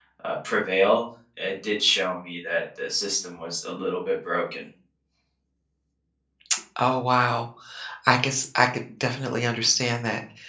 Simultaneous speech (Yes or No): No